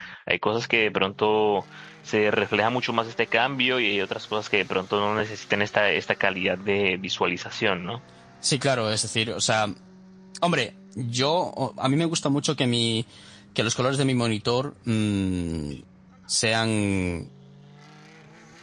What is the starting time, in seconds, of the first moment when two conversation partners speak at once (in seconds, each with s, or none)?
none